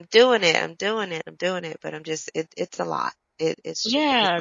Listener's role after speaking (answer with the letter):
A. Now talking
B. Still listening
A